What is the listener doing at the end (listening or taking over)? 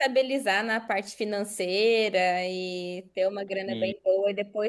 listening